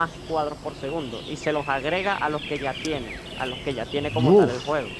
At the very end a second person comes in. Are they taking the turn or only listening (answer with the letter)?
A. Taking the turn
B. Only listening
B